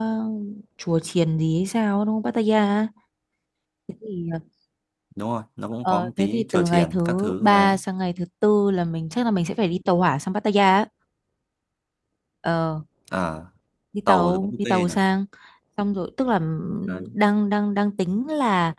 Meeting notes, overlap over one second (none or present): present